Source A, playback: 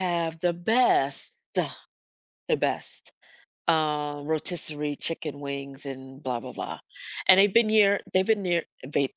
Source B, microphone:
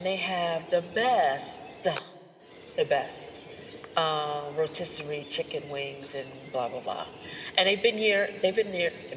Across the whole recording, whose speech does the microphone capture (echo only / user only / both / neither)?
echo only